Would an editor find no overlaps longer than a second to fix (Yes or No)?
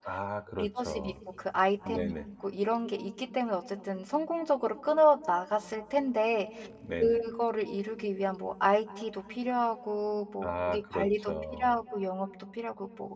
No